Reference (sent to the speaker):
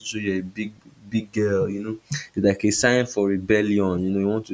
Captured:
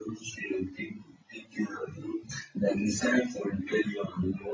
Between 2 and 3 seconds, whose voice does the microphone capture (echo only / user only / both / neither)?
echo only